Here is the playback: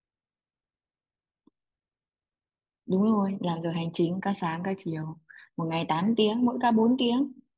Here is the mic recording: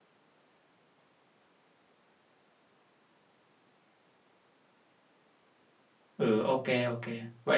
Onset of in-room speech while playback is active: 6 s

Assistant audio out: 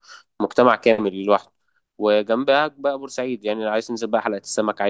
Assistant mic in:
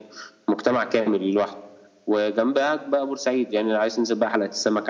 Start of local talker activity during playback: none

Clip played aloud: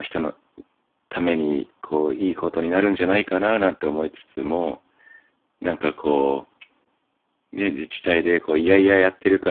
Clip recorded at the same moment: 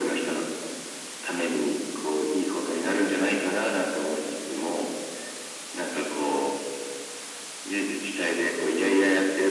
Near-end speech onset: none

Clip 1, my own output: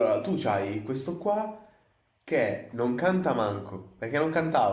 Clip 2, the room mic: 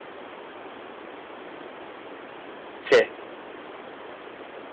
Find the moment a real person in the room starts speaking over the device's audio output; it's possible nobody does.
3 s

